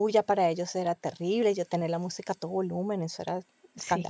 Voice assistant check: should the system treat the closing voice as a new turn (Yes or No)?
Yes